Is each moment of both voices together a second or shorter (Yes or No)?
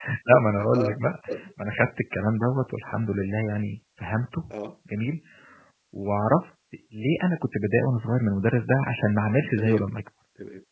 Yes